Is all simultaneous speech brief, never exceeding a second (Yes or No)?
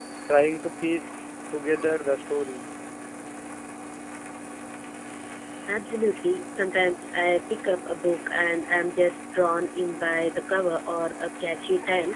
Yes